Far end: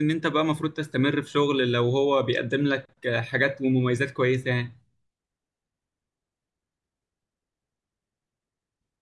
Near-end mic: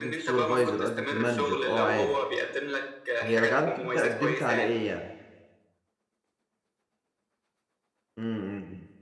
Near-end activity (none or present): present